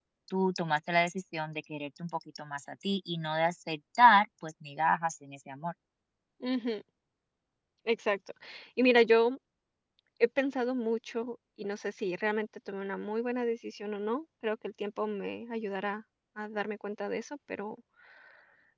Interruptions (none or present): none